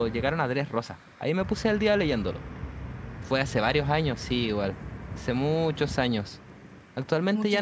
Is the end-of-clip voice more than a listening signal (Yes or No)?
No